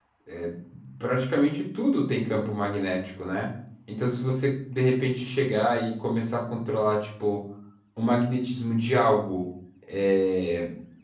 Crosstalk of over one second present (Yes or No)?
No